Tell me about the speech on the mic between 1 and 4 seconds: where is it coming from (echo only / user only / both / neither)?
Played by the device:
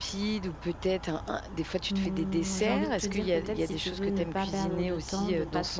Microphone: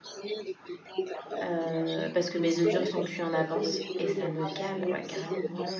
both